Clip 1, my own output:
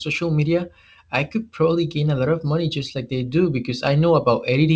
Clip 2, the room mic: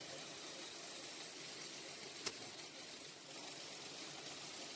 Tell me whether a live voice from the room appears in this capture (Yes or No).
No